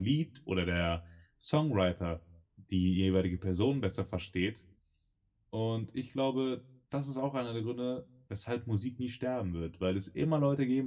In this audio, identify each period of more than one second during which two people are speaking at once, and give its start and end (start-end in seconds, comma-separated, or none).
none